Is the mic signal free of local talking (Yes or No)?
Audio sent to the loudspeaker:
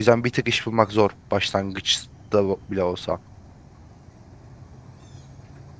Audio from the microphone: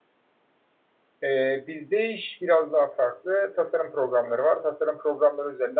No